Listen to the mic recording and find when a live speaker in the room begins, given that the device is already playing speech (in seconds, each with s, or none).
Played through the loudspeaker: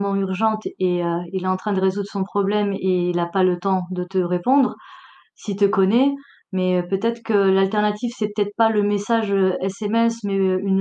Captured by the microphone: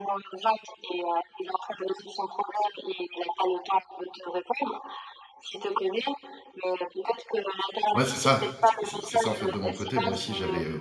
7.9 s